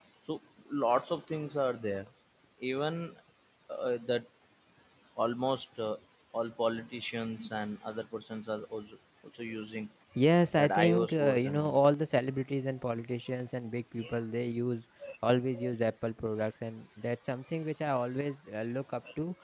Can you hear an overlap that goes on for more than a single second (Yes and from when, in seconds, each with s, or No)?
Yes, from 10.6 s